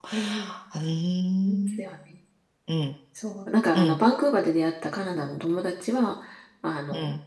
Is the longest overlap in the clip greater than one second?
No

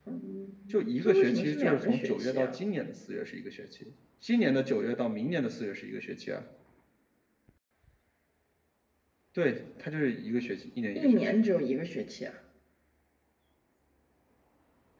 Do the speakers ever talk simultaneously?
Yes, from 0.7 s

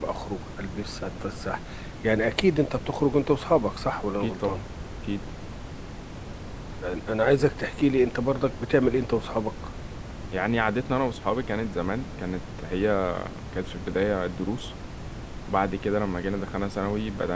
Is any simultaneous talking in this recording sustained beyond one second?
No

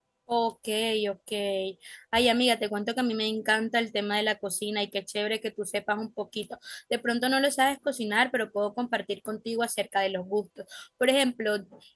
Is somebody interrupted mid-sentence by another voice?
No

